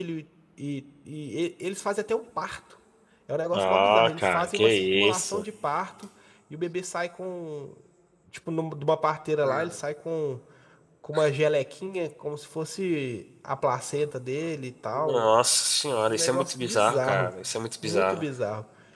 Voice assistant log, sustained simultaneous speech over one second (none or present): present